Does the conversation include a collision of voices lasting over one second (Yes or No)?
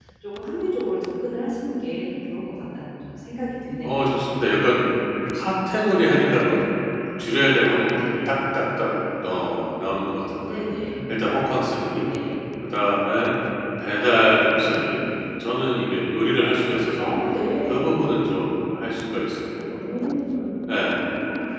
No